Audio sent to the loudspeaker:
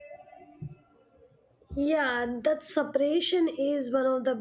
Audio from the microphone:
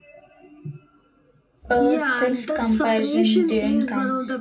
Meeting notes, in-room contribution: present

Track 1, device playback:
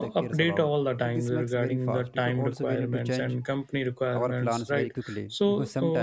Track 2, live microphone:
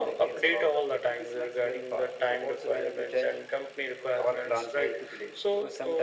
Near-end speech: none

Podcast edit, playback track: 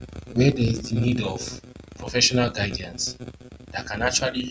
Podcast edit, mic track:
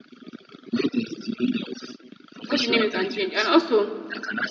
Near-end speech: present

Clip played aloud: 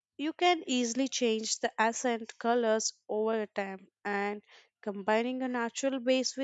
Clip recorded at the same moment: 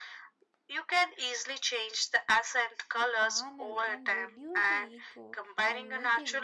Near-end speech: present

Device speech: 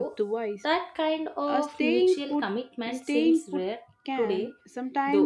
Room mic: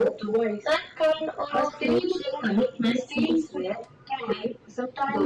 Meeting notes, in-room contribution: none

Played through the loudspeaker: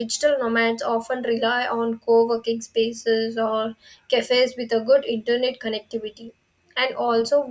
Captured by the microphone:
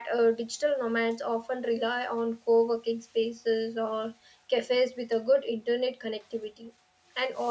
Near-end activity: none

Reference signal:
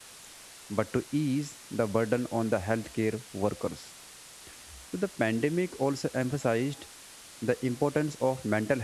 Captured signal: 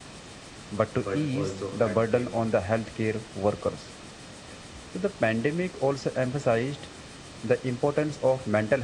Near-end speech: present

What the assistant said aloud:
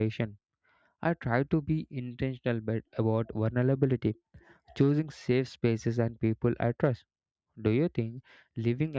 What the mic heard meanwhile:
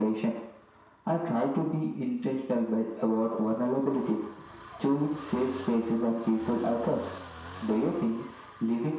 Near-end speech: none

